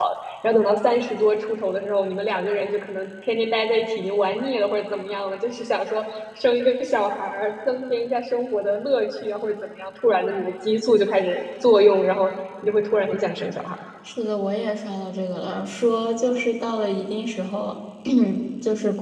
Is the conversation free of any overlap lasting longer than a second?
Yes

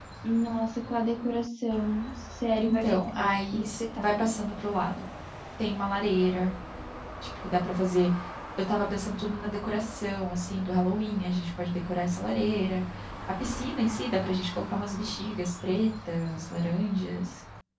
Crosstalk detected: Yes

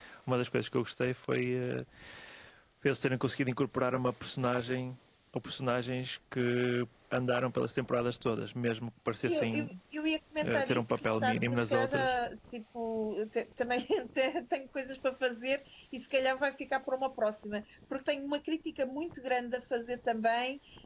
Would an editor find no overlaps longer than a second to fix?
No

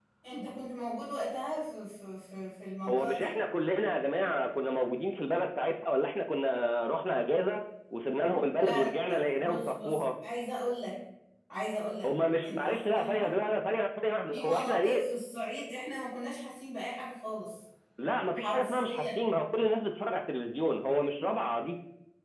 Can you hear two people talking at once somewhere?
Yes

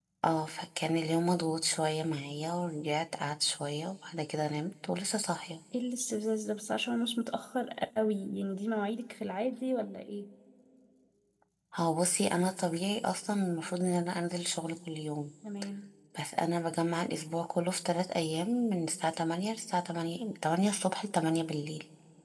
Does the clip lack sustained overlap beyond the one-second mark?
Yes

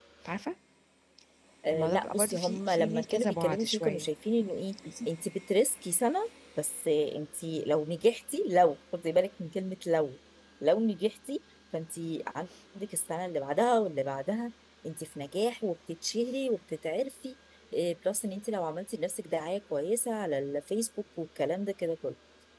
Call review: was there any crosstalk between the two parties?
Yes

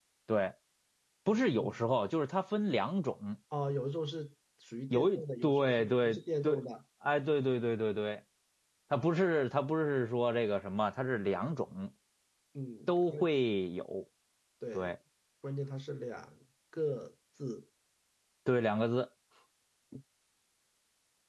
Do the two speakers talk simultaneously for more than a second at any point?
Yes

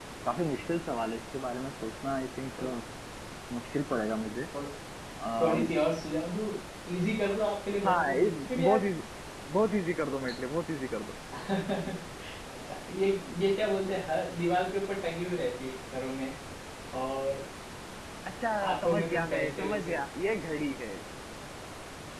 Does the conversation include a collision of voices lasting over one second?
Yes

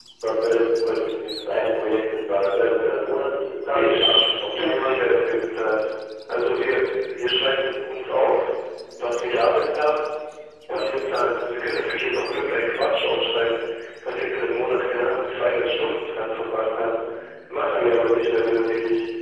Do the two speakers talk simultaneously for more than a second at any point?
Yes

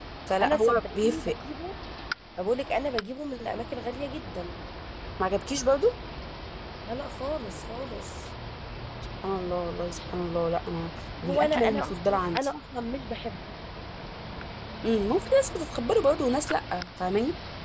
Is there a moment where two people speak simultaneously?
Yes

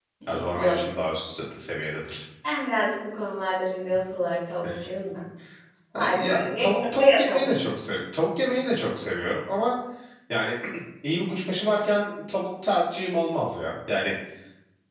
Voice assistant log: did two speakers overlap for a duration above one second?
Yes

